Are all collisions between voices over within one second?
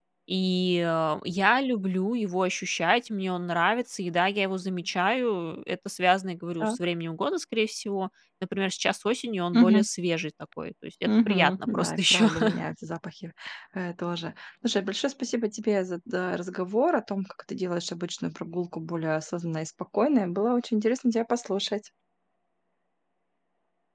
No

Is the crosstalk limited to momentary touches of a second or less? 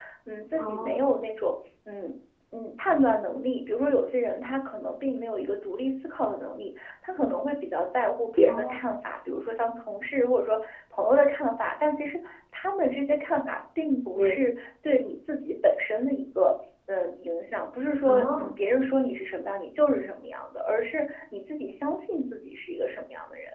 Yes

